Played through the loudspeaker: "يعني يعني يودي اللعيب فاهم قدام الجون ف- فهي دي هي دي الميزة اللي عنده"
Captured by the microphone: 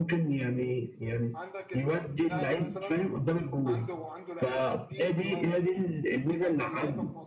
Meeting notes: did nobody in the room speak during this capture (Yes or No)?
No